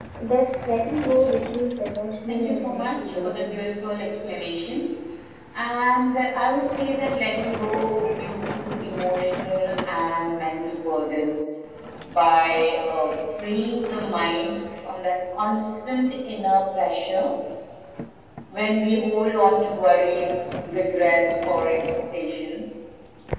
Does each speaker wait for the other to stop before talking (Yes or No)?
No